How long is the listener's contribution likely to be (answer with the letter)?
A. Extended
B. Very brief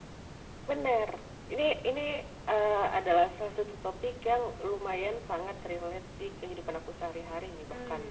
A